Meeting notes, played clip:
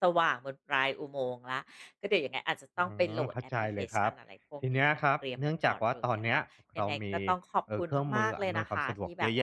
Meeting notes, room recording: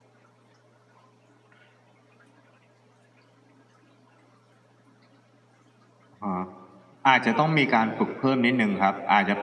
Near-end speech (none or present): present